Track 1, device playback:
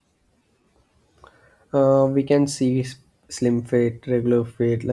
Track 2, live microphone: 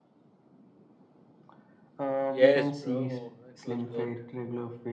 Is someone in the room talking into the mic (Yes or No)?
Yes